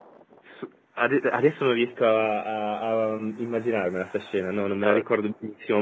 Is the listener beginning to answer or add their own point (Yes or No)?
No